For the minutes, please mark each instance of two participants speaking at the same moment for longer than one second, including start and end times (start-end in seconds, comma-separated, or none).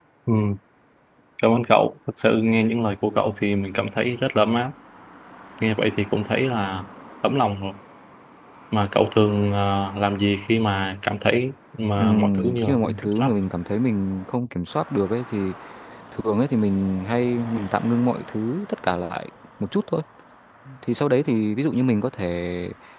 12.0-13.3